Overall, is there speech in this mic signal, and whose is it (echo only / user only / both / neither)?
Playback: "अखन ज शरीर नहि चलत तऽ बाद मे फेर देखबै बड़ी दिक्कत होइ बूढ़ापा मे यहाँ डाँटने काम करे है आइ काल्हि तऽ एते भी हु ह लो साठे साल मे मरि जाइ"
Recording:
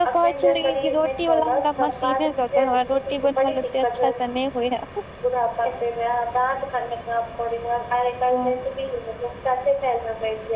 both